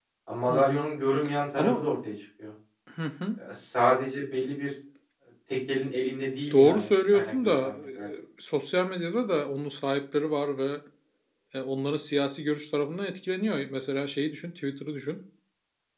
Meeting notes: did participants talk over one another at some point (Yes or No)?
Yes